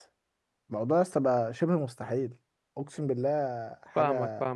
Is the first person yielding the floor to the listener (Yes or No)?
Yes